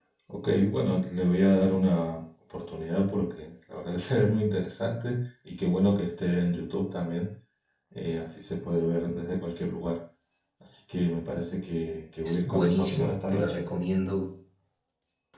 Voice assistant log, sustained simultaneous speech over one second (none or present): present